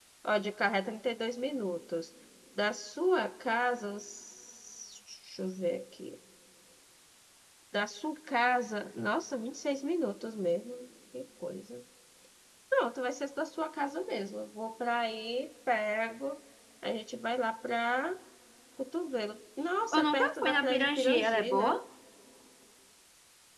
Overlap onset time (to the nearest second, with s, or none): 20 s